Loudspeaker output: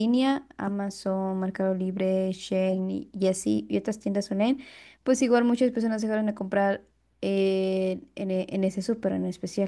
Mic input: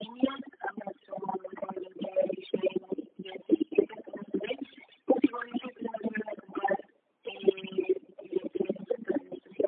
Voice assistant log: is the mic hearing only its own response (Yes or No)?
Yes